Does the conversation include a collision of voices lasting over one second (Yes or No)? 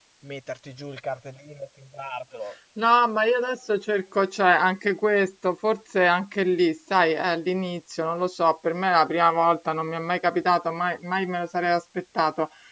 No